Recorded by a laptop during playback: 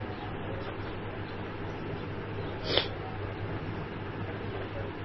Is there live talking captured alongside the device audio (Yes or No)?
No